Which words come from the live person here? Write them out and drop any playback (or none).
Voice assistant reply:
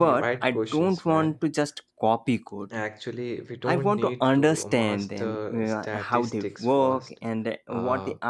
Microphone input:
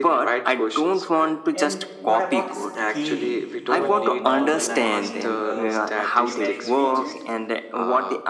And what about scaling or normalizing uh, numeric features?